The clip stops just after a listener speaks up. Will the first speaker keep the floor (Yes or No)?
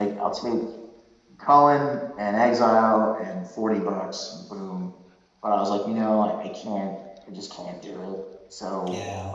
No